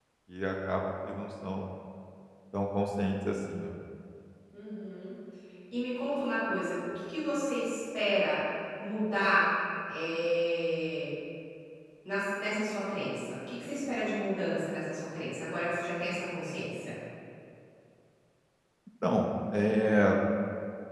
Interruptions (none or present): none